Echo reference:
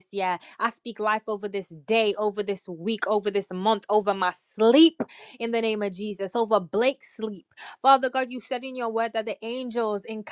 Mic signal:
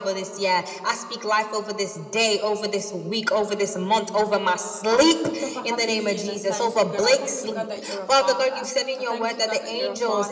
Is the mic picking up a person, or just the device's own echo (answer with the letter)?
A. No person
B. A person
B